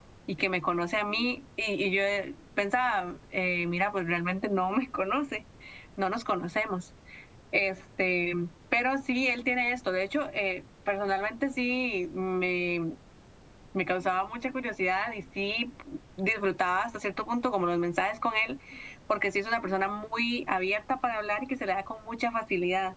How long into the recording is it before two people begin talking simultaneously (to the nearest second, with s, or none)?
none